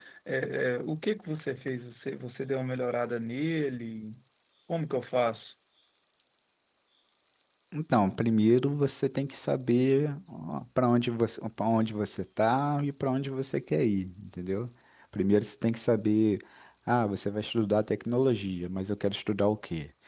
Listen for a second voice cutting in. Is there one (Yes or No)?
No